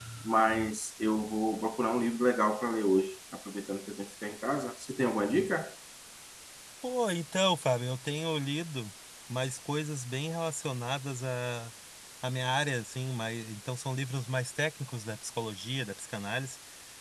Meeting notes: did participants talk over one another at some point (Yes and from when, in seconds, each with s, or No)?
No